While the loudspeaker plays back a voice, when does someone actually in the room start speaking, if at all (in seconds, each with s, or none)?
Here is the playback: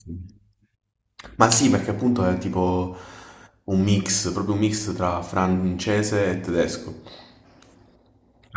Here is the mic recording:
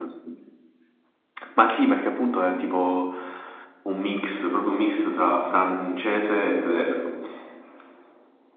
none